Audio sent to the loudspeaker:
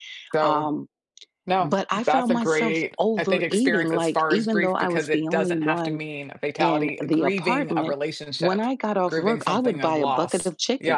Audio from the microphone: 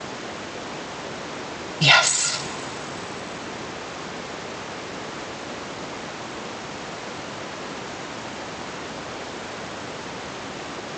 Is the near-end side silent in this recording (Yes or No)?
No